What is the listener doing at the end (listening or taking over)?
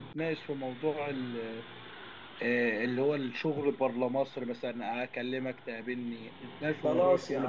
taking over